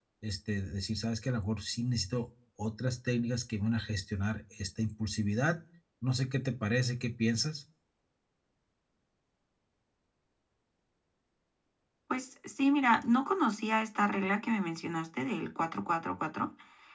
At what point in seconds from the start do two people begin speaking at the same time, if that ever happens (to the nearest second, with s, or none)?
none